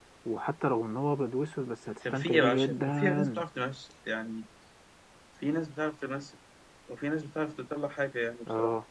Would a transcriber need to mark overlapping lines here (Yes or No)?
Yes